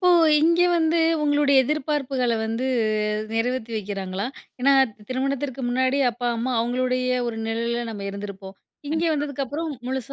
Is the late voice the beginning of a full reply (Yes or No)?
No